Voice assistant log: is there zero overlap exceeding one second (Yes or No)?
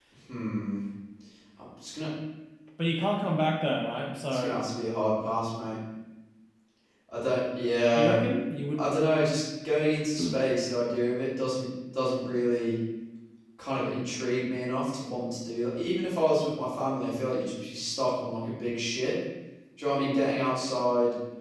Yes